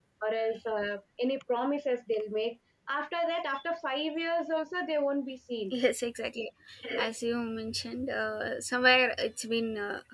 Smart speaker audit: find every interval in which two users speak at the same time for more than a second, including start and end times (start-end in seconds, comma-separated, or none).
none